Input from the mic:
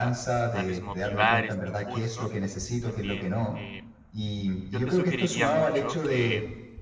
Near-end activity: present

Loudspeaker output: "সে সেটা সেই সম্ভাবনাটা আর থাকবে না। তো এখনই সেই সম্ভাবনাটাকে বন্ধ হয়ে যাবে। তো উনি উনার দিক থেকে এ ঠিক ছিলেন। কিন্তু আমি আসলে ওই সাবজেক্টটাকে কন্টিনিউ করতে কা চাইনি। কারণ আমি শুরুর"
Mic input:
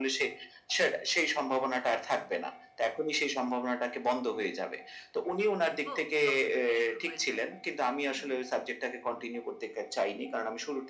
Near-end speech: present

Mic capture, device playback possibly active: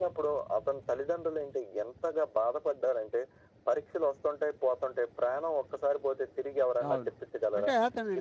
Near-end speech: present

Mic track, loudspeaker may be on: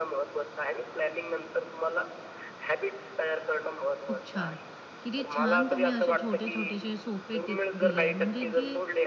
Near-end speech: present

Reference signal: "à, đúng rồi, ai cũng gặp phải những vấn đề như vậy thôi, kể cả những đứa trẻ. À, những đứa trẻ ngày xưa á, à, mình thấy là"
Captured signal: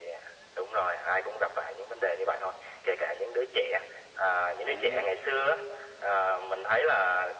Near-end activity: present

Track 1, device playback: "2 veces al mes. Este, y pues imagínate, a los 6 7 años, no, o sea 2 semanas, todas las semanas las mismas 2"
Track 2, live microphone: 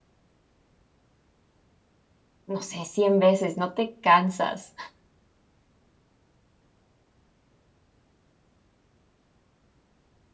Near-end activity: present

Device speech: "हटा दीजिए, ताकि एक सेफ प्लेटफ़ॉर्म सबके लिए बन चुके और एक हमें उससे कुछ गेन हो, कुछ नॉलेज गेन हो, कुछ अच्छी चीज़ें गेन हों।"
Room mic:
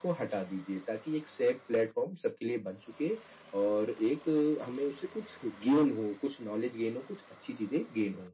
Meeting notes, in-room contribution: none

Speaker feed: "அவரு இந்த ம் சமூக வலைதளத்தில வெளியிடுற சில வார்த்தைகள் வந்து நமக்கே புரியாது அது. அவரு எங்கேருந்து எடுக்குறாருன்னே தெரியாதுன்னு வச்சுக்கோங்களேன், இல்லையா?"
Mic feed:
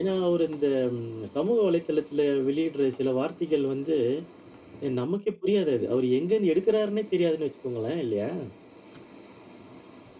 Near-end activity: none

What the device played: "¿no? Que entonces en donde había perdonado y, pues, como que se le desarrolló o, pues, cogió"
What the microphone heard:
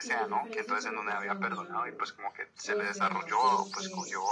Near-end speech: present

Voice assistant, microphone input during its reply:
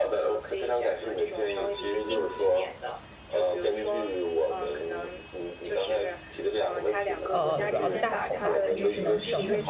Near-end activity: present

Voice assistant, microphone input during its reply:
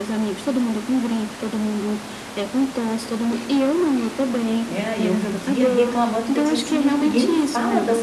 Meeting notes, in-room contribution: present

